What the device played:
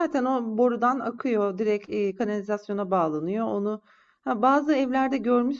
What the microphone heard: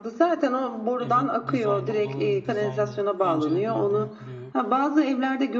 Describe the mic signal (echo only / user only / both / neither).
both